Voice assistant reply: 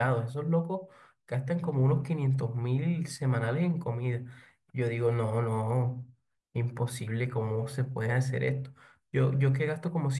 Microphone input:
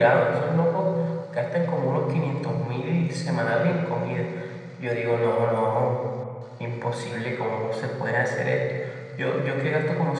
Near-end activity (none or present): none